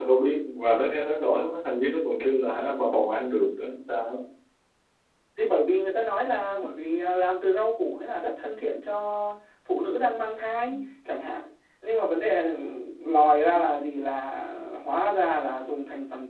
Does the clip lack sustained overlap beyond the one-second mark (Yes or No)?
Yes